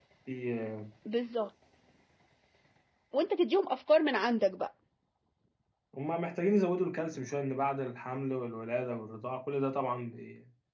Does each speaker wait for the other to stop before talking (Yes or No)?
Yes